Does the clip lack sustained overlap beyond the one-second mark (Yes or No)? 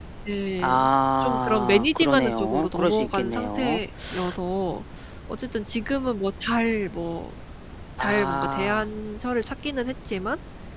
No